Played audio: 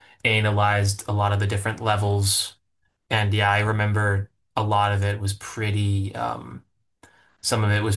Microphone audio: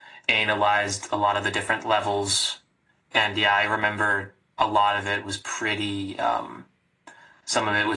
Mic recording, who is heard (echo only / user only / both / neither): echo only